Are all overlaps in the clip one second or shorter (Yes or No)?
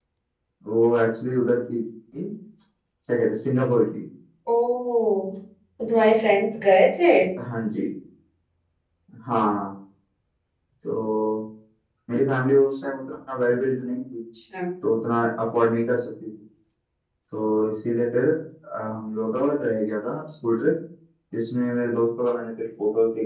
Yes